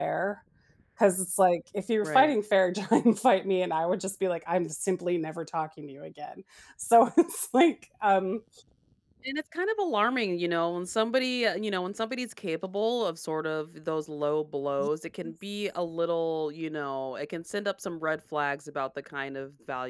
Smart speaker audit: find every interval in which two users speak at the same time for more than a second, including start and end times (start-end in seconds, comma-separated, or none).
none